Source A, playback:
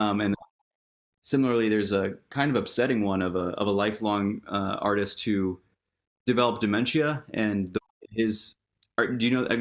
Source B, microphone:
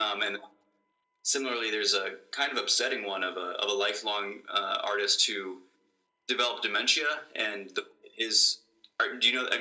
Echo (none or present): present